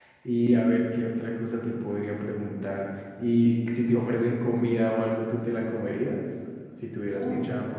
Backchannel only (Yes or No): No